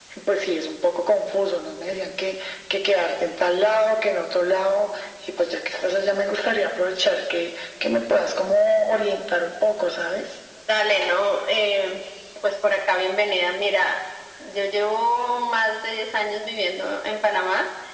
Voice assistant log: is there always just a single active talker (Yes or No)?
Yes